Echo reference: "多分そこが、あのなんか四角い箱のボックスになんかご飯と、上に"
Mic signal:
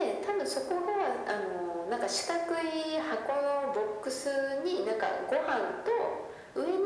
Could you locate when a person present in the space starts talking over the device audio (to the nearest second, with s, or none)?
none